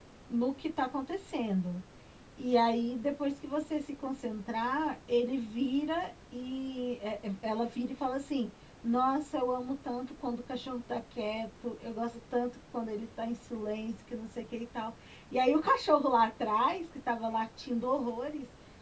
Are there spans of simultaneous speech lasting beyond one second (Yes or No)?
No